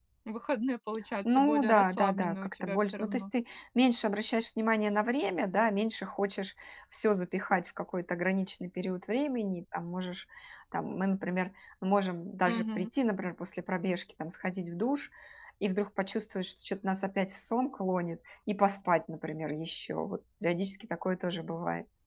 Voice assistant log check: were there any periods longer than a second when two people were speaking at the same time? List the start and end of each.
1.2-3.2

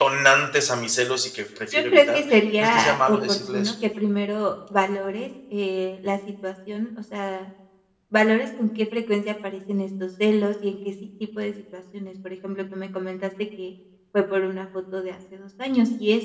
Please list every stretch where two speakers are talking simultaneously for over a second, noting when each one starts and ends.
1.7-3.7

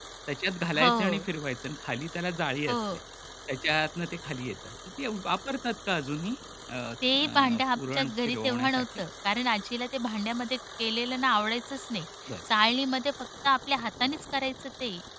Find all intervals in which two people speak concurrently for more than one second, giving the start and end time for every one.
7.2-8.8

